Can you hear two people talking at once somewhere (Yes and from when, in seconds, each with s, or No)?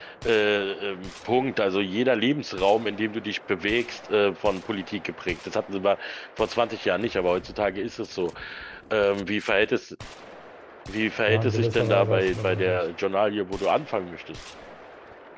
Yes, from 11.3 s